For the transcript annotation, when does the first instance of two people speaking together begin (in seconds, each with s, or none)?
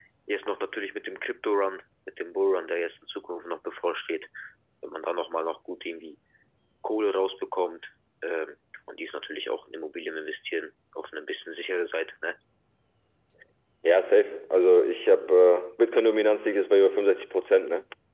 none